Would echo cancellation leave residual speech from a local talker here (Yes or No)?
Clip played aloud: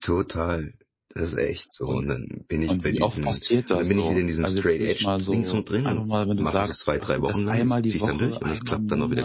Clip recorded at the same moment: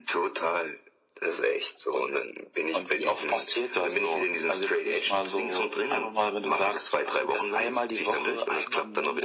No